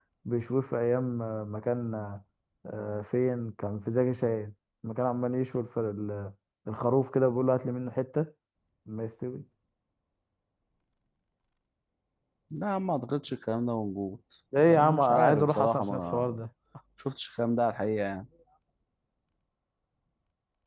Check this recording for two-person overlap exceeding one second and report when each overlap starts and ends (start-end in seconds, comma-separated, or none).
14.6-16.4